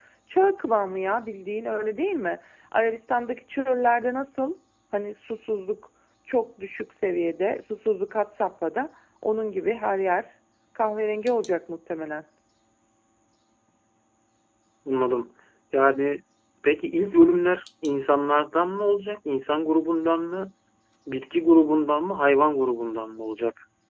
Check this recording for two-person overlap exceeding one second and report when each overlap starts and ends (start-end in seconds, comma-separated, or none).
none